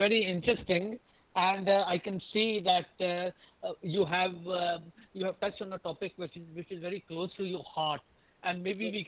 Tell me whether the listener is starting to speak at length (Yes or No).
No